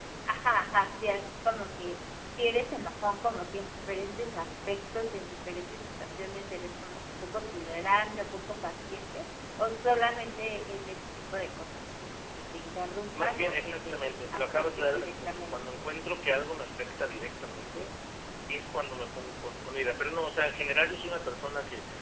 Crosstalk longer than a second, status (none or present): present